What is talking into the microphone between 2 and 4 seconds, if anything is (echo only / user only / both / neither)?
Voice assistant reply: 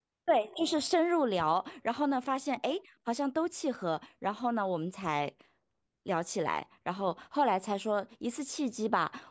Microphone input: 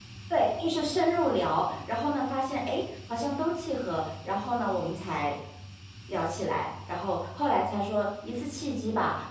echo only